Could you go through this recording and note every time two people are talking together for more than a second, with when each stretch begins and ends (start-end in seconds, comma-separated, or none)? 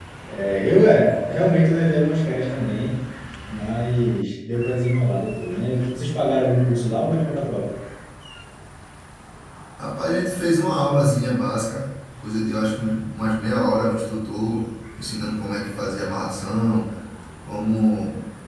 none